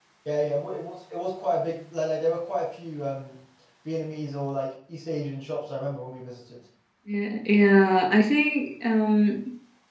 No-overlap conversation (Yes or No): Yes